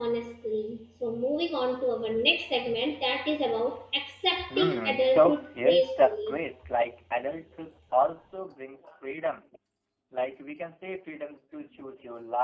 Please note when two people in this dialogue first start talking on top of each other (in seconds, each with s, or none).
4.5 s